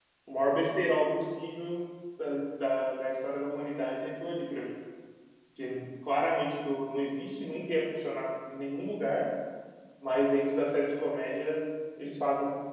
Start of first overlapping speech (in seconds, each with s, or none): none